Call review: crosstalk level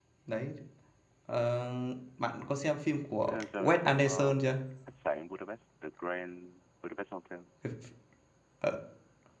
present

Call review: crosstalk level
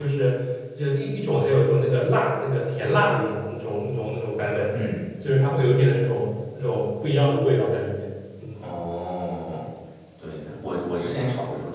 none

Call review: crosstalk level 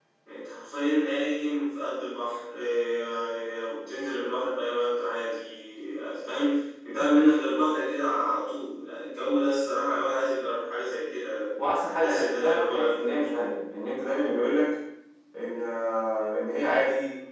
present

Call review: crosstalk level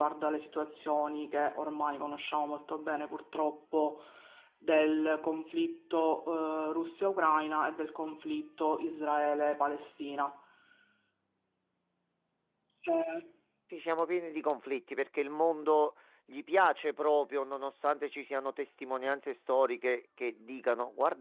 none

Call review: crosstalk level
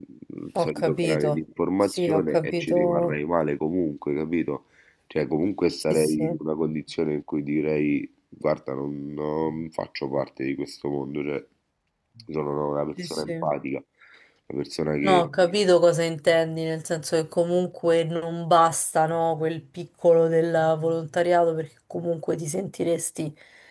present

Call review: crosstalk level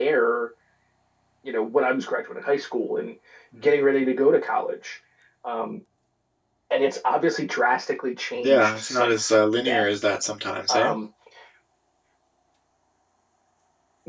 present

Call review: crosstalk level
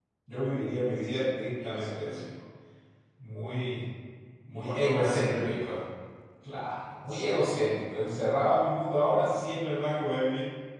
present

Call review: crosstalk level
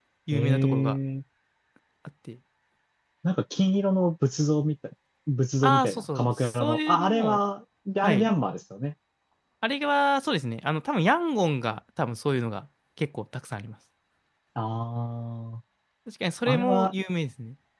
present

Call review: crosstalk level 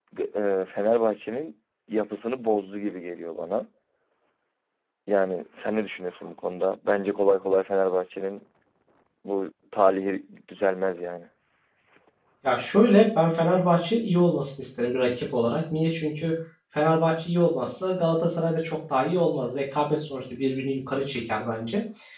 none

